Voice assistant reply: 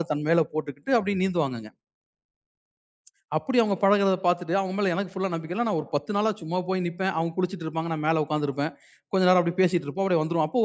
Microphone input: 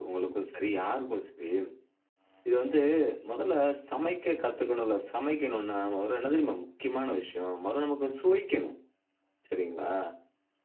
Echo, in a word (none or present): none